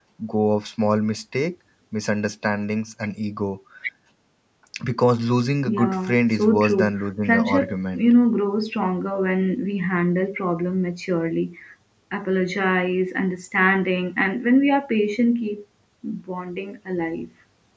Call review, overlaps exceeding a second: present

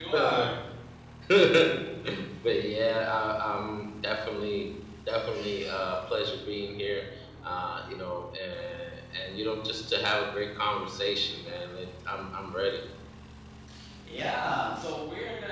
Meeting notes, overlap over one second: none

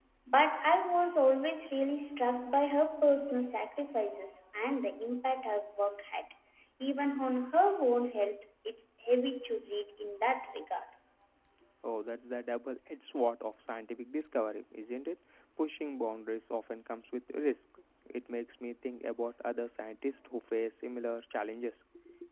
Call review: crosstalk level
none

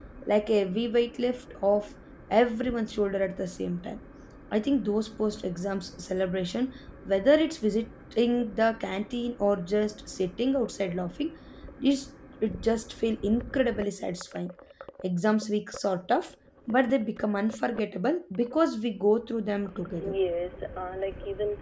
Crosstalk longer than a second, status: none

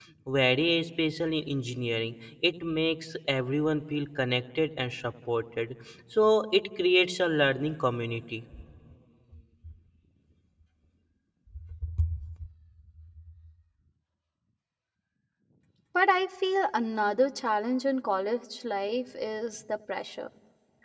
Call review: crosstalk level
none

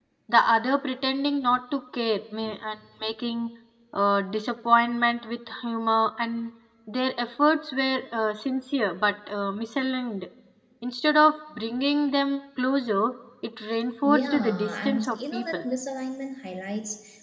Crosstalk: present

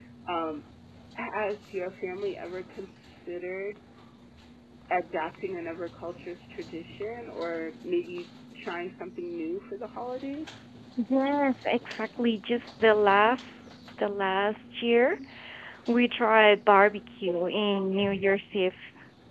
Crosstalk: none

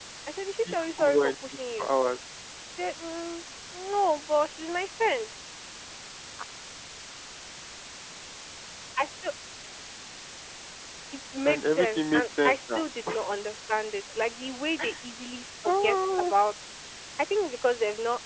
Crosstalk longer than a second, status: present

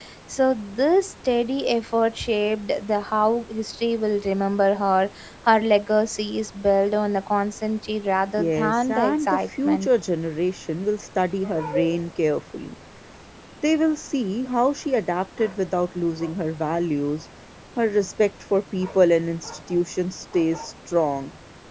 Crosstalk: present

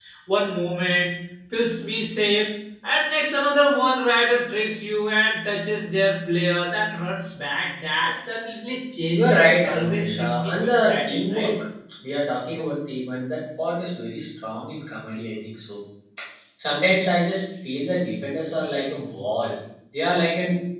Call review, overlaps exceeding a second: present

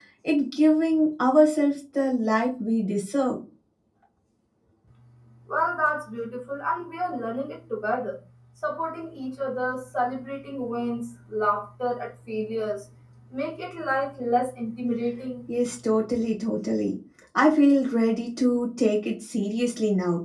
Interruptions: none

